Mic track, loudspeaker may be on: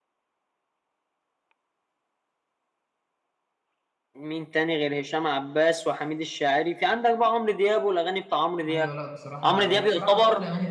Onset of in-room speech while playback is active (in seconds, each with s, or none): 8.7 s